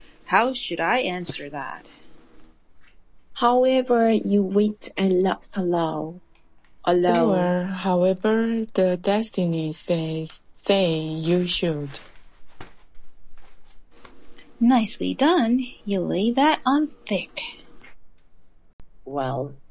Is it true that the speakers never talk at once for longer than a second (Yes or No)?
Yes